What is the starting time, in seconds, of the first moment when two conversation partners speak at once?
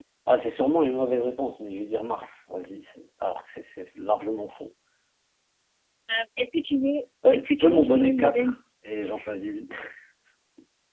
7.2 s

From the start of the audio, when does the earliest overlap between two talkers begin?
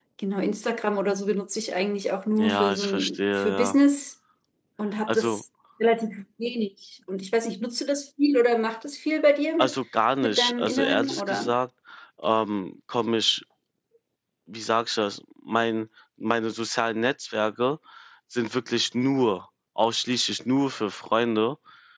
2.4 s

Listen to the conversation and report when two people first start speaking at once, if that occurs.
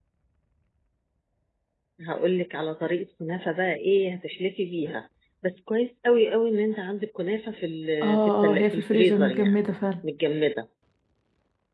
8.0 s

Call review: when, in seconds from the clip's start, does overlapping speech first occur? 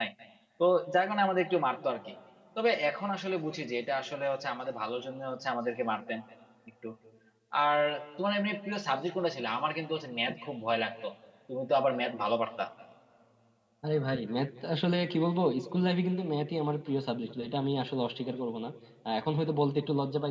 none

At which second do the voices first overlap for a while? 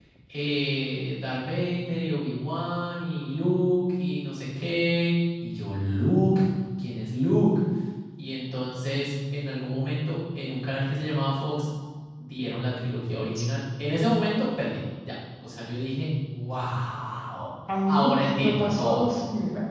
17.7 s

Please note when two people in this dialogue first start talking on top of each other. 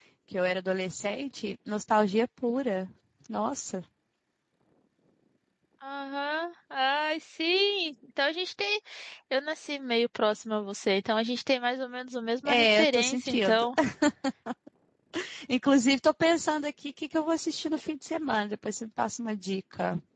12.4 s

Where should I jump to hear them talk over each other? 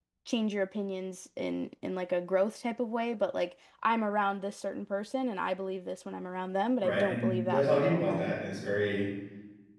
6.8 s

